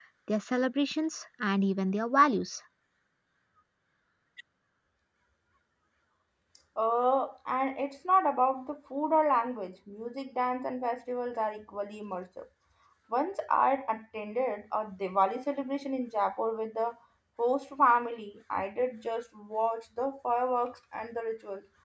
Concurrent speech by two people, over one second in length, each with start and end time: none

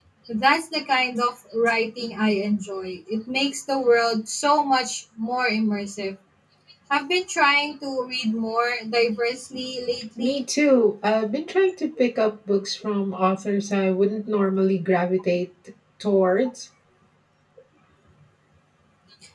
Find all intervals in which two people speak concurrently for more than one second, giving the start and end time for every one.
none

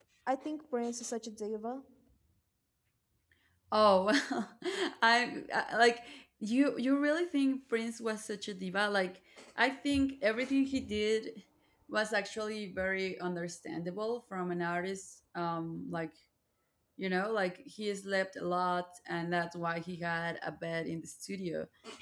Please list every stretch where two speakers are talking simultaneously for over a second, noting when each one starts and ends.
none

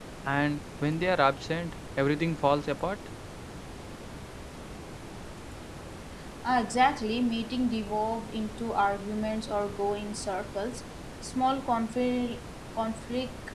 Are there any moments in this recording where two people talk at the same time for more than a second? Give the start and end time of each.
none

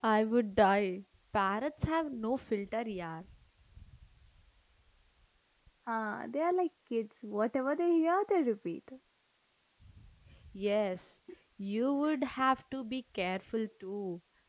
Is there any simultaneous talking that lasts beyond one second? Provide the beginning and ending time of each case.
none

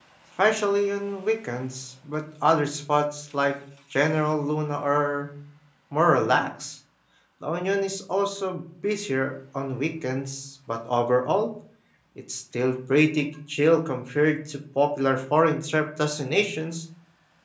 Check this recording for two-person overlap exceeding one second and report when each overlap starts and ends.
none

